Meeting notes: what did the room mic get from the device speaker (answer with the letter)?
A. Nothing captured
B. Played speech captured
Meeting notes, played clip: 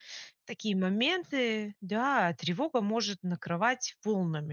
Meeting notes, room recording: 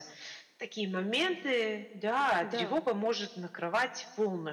B